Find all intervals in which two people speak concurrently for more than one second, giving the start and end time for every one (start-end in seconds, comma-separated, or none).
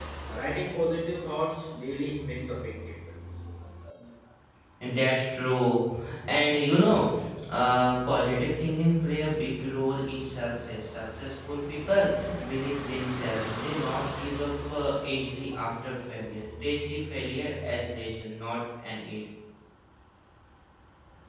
none